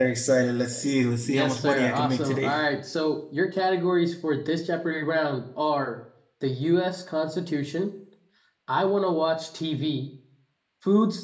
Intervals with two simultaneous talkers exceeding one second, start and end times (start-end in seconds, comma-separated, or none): 1.2-2.5